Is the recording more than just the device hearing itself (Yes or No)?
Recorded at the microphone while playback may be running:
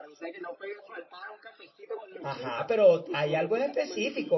Yes